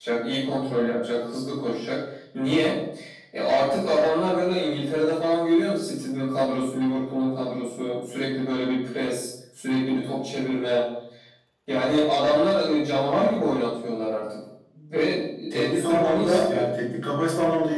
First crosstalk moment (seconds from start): 16 s

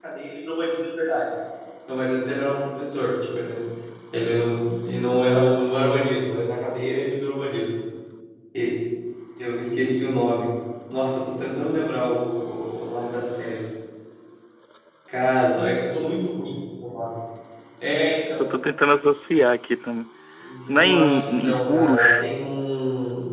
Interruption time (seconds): 21 s

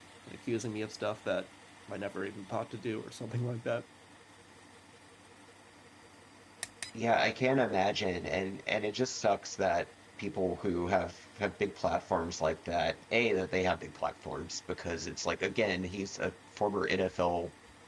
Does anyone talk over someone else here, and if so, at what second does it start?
none

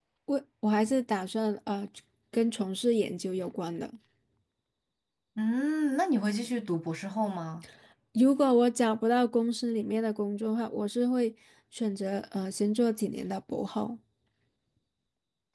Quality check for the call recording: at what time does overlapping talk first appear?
none

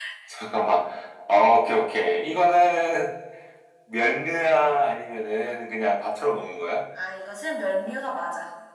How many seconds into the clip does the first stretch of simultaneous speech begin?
none

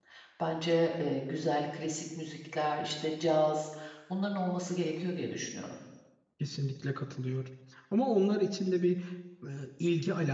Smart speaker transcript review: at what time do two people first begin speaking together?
none

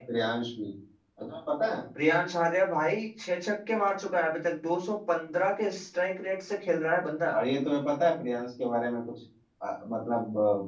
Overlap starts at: none

